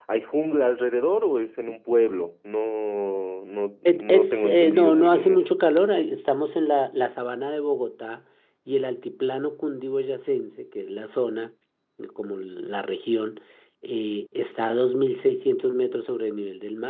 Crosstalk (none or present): present